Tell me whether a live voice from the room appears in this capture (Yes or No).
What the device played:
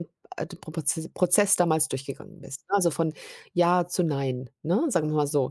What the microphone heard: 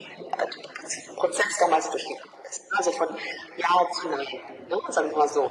No